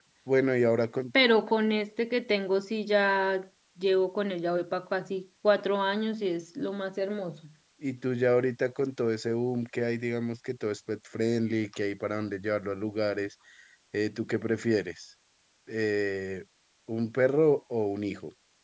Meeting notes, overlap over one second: none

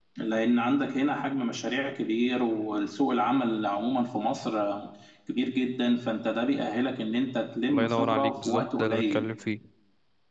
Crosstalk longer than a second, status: present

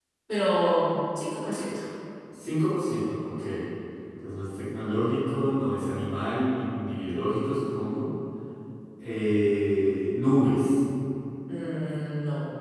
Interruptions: none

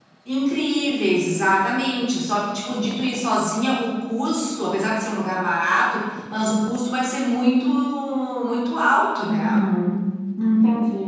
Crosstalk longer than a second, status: none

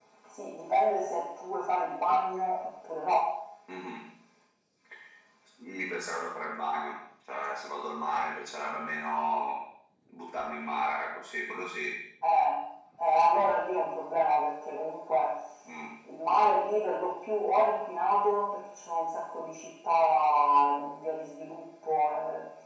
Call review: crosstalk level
none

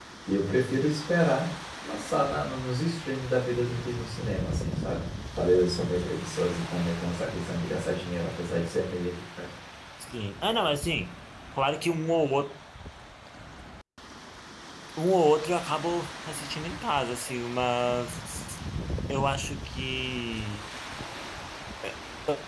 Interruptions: none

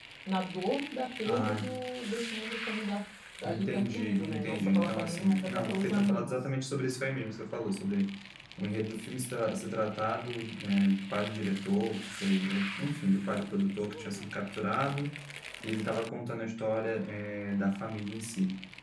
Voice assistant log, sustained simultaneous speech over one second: present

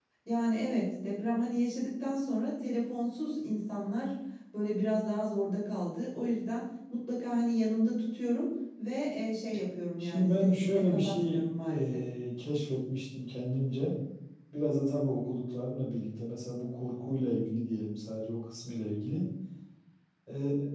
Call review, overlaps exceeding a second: present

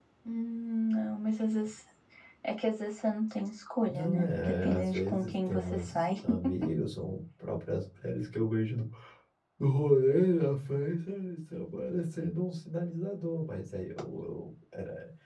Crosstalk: present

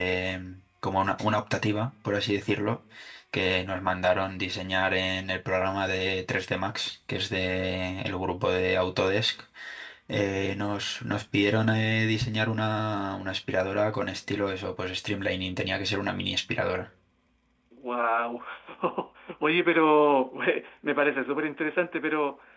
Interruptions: none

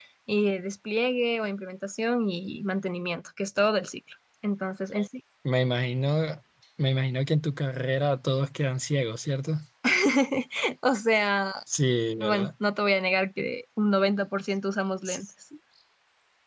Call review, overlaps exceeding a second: none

